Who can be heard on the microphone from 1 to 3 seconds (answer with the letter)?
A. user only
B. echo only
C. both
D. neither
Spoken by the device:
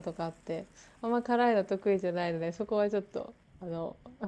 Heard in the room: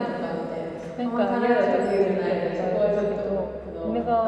C